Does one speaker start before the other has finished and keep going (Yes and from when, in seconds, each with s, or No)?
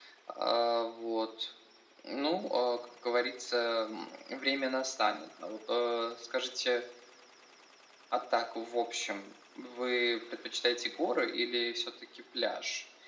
No